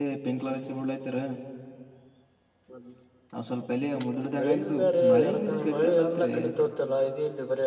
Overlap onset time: 4 s

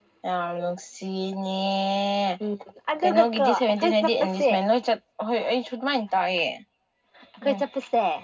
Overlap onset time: 3 s

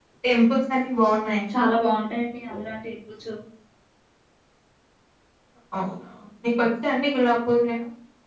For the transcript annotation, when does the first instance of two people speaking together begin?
none

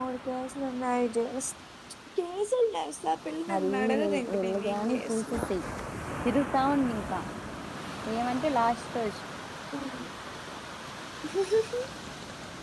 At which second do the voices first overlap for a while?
3 s

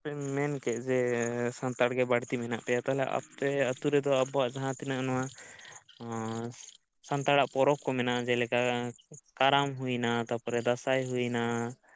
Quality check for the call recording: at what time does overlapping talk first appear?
none

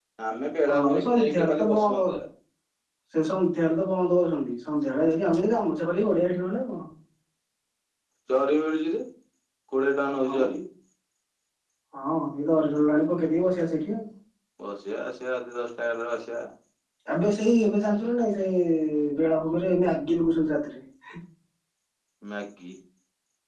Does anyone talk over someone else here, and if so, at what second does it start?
1 s

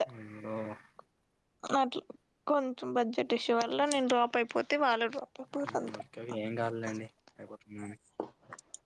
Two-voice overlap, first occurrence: none

